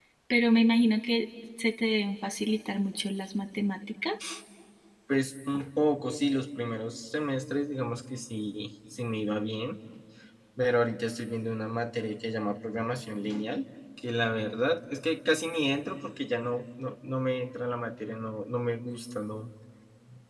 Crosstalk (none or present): none